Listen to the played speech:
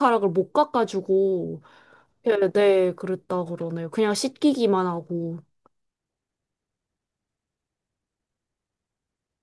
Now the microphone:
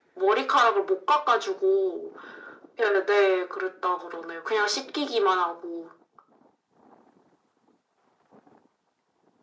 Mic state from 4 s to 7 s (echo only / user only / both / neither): echo only